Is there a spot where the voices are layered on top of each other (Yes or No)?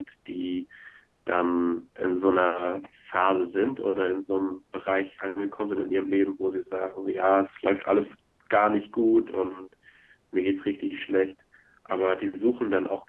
No